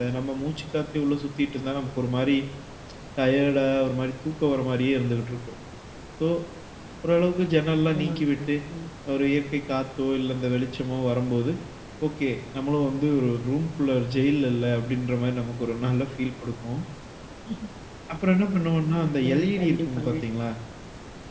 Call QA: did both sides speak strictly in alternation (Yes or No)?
No